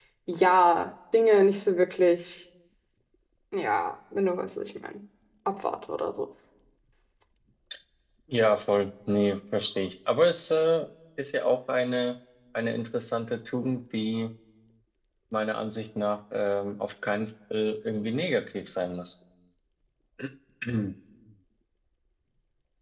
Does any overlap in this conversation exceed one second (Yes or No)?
No